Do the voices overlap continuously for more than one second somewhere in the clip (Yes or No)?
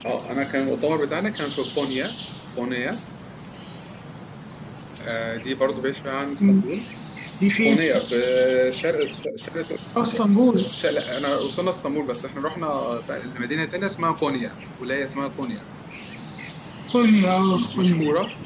No